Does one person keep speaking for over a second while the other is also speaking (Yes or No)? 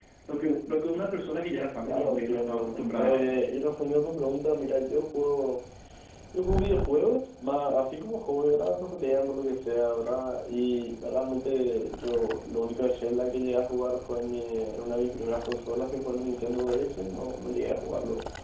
Yes